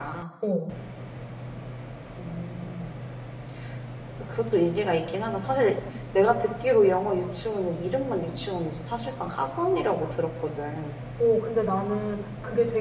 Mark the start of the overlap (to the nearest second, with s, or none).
none